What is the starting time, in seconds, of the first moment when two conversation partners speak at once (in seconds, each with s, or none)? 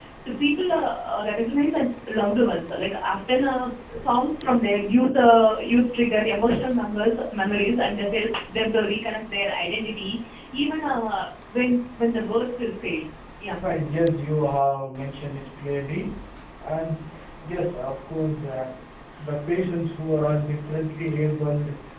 none